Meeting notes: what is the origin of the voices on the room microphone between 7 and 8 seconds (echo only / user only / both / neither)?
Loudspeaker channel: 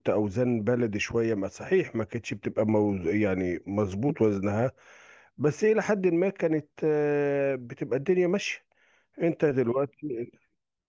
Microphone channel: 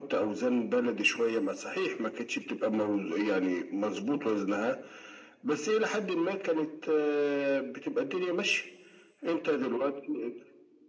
echo only